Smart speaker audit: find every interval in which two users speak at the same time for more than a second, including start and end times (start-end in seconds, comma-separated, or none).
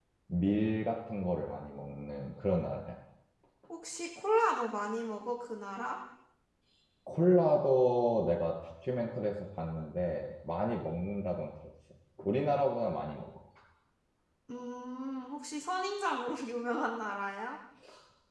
none